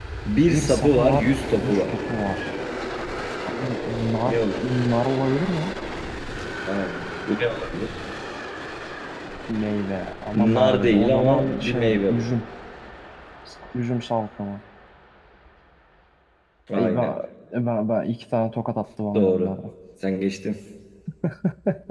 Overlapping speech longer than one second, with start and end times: 0.5-1.9, 10.3-12.3

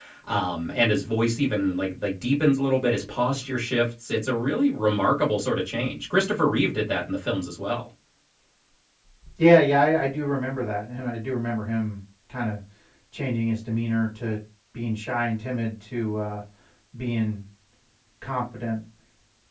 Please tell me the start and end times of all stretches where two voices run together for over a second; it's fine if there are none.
none

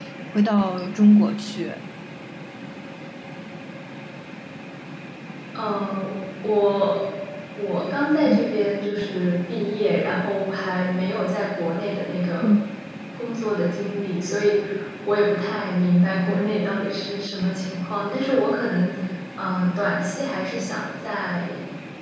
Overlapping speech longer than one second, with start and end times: none

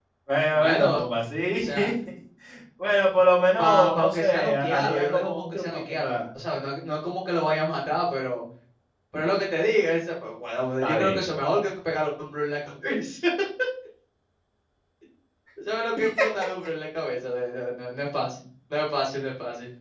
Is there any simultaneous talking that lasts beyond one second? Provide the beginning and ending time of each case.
3.6-6.1

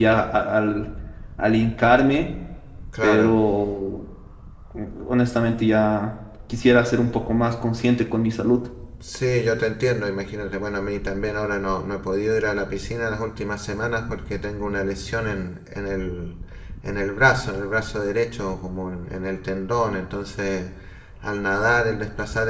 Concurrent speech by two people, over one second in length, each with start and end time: none

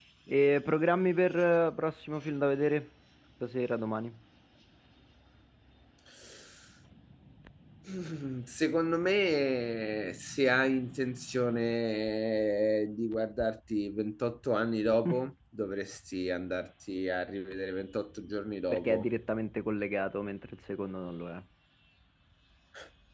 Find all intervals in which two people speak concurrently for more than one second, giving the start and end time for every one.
none

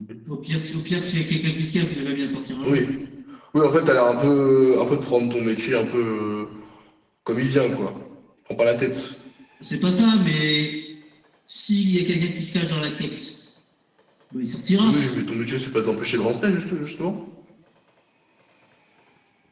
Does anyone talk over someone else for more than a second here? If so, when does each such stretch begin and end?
none

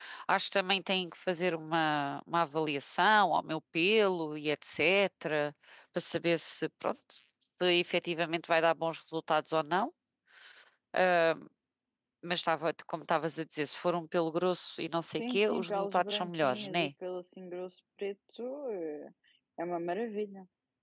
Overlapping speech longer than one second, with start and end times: 15.2-16.9

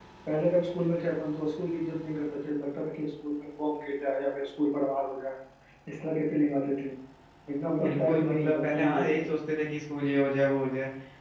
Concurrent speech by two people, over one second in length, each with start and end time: 7.8-9.1

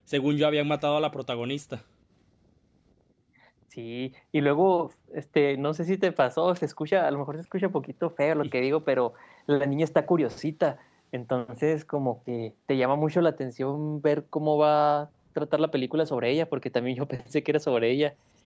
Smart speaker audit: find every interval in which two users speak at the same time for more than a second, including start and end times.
none

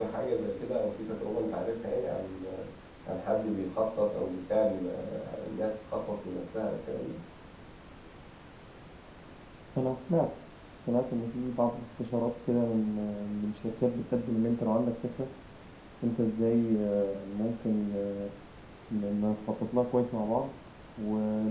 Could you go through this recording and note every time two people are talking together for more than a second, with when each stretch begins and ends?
none

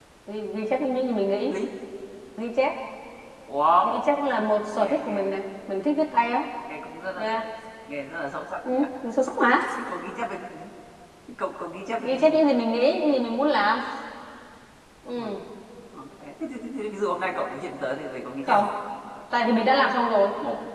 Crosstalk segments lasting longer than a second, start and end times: none

